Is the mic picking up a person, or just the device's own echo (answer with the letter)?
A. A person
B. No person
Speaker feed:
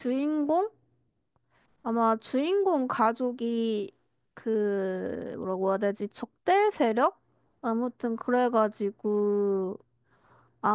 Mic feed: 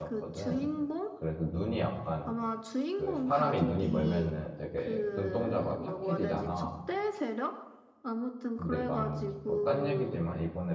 A